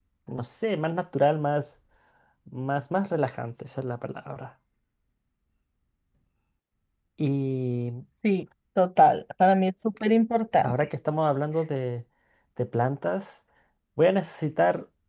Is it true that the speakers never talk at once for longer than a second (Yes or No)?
Yes